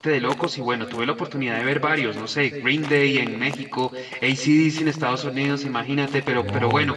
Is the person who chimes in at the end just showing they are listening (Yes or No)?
Yes